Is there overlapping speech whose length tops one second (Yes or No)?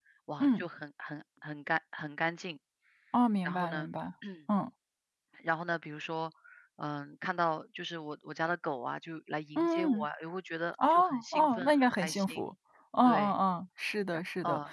Yes